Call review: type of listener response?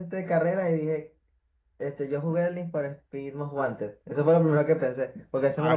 listening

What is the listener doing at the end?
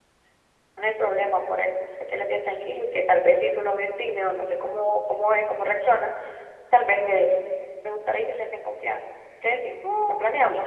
taking over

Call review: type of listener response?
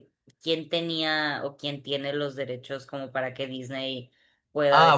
taking over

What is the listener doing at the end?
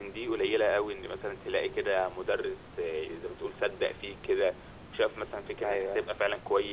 listening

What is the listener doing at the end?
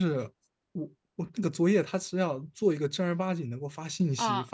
listening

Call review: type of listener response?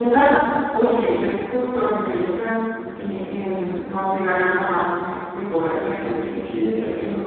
listening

